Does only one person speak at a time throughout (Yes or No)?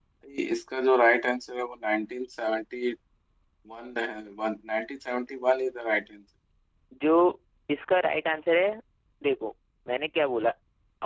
Yes